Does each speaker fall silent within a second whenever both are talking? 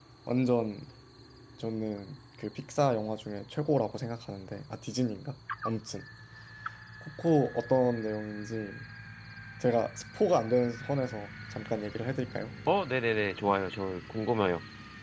Yes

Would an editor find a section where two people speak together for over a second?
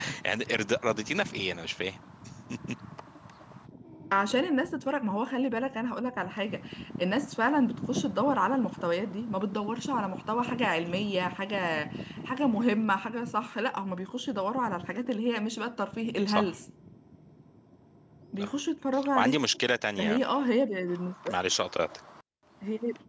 No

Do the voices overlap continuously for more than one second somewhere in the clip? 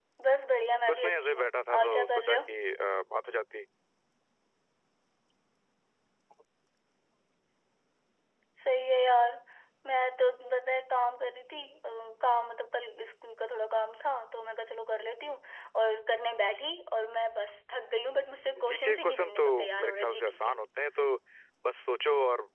Yes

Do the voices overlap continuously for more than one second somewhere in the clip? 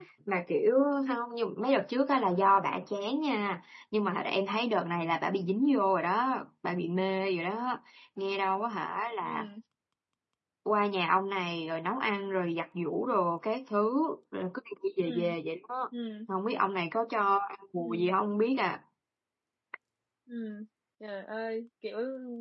No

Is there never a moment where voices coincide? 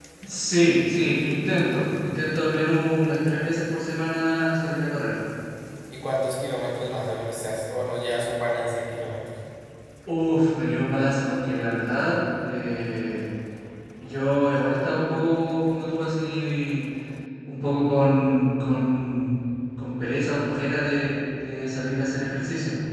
Yes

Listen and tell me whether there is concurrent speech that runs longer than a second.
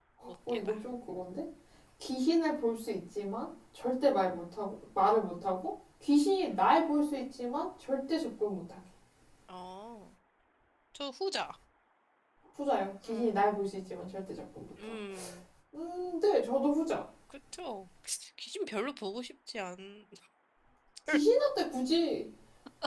No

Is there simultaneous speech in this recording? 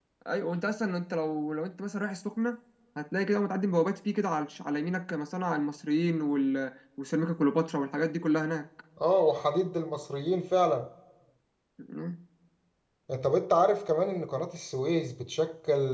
No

